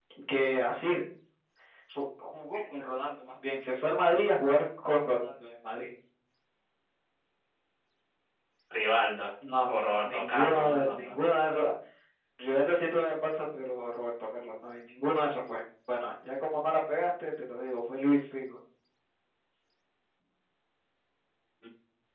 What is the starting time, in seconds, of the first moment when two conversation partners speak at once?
9.7 s

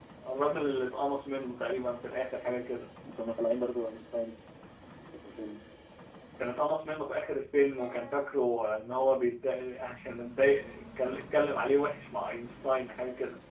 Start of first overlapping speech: none

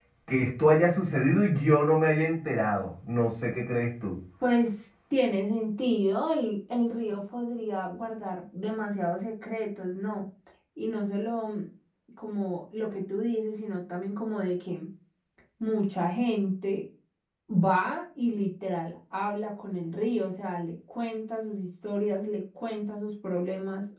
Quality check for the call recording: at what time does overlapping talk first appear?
none

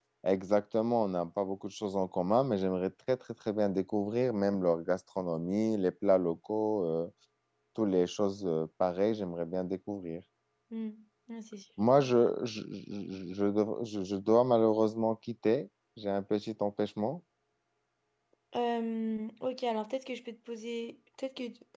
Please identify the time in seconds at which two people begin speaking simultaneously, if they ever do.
none

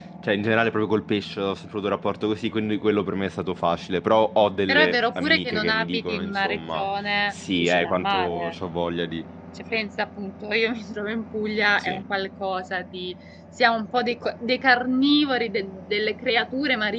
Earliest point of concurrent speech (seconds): 4.7 s

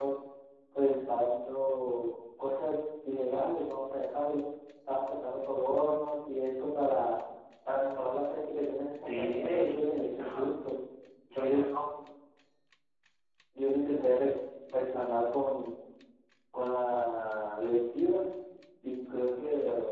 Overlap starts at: 9.0 s

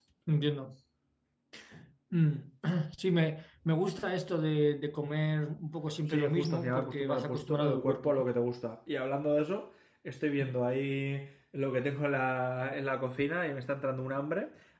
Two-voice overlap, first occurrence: 6.1 s

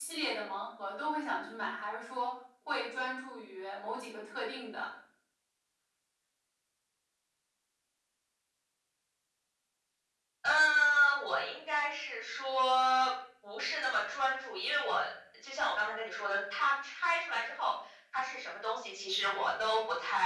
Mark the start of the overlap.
none

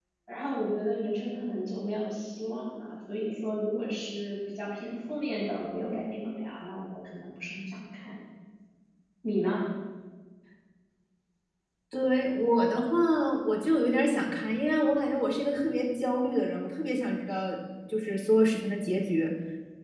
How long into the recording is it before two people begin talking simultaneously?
none

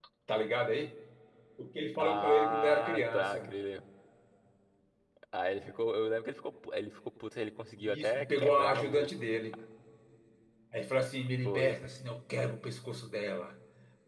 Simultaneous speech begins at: 2.2 s

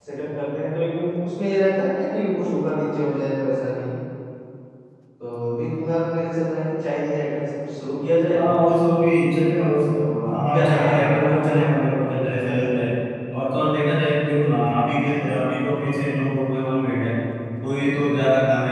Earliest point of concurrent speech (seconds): 10.0 s

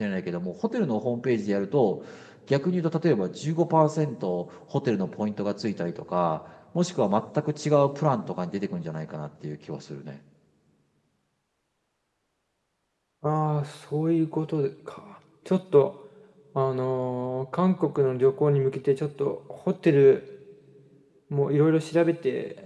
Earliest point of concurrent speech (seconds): none

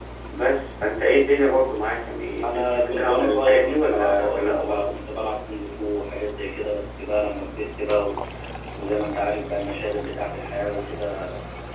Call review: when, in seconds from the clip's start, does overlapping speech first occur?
2.4 s

